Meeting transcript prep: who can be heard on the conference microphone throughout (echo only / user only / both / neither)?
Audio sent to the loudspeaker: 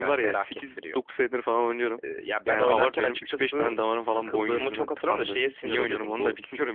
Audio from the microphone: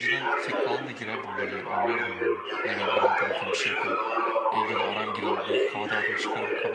both